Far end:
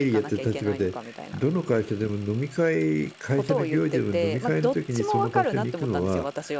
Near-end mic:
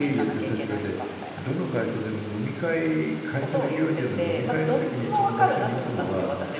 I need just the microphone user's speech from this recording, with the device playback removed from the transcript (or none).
none